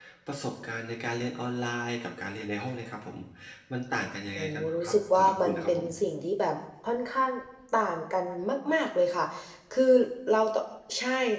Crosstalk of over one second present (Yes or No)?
Yes